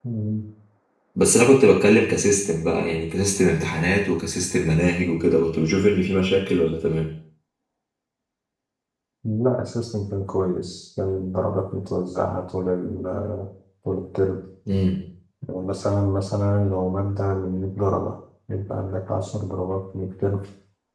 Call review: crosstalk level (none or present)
none